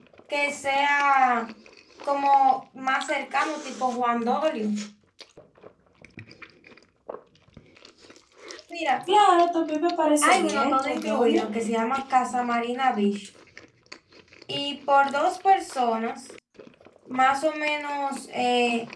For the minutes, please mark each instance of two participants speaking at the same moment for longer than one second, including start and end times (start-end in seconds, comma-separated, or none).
10.2-11.4